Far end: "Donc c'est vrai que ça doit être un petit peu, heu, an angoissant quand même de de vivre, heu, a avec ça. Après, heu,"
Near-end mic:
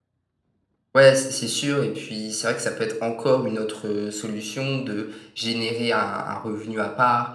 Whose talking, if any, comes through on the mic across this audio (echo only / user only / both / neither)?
user only